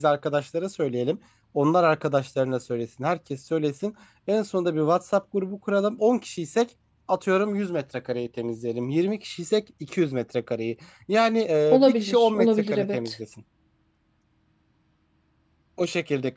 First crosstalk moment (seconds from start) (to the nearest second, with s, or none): 12 s